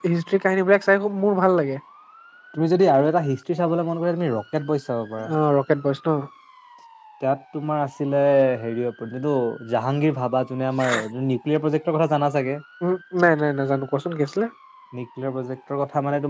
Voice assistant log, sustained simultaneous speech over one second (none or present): none